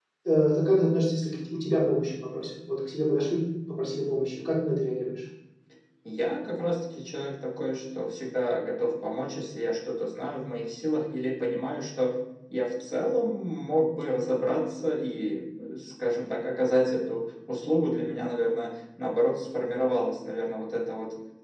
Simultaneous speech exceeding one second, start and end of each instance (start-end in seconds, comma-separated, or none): none